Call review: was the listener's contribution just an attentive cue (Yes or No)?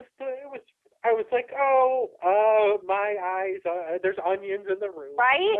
No